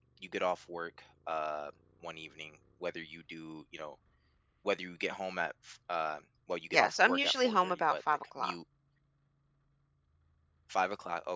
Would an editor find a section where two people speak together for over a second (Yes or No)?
Yes